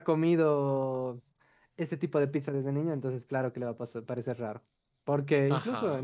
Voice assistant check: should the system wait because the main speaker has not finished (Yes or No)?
Yes